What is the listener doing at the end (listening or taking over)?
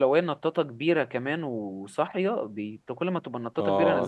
taking over